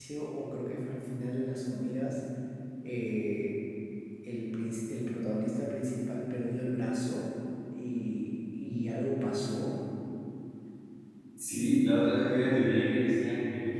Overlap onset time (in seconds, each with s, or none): none